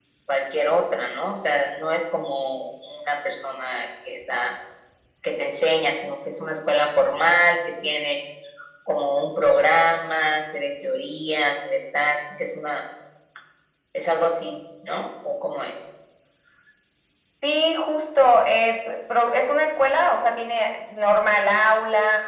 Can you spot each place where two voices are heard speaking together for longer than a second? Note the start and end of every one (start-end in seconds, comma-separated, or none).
none